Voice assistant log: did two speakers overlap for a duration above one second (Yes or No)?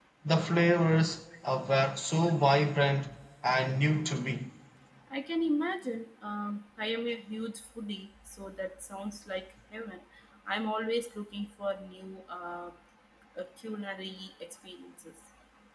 No